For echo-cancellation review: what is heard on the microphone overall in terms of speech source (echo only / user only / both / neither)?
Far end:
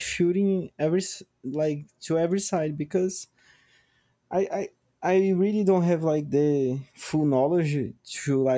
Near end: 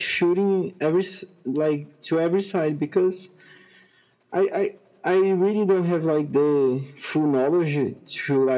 echo only